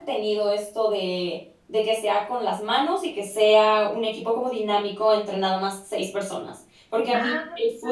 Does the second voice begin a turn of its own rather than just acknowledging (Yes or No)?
No